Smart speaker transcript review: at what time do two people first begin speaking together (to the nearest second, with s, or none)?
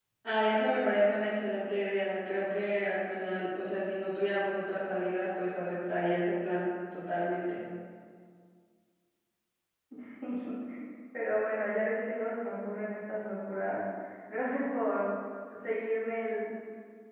none